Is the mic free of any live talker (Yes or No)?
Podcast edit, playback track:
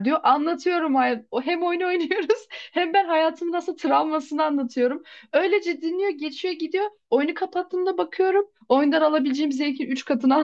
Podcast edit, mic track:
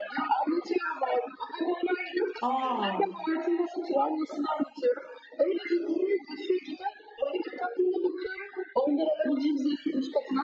No